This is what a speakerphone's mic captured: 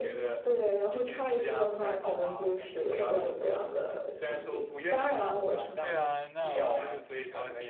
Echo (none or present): present